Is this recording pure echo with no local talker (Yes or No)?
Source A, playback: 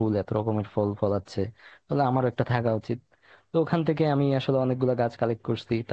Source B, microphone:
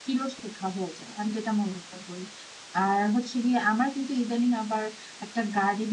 No